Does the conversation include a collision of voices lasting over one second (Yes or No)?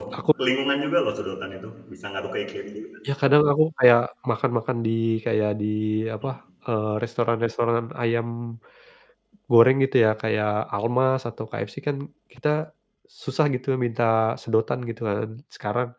No